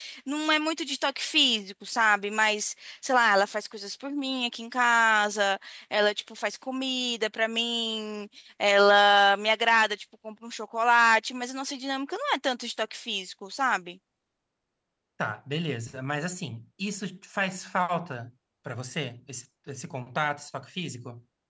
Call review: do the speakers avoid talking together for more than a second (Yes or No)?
Yes